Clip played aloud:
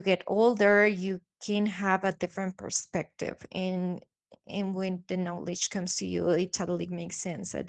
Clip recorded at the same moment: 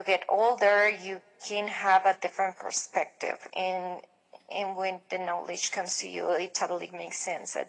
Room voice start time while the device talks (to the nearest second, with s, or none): none